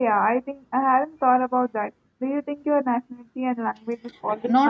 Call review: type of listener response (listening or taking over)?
taking over